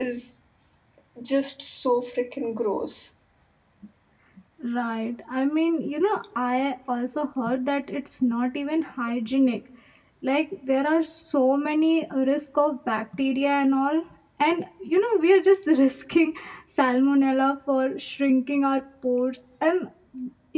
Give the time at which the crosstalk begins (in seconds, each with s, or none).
none